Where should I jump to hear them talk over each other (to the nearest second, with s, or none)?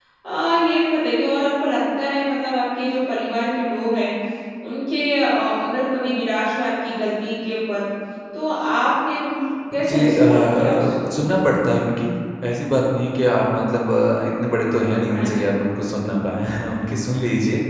10 s